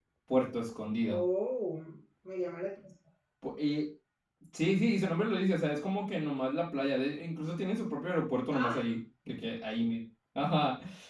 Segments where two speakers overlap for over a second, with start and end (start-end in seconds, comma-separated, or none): none